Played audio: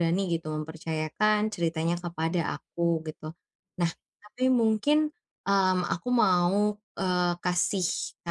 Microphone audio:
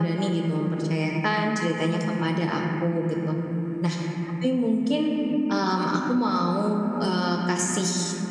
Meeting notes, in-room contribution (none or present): none